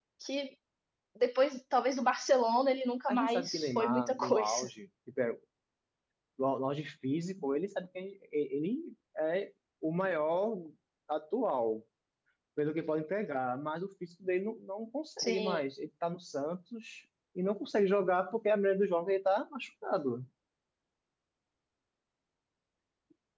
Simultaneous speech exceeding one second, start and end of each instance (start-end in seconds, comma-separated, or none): 3.1-4.7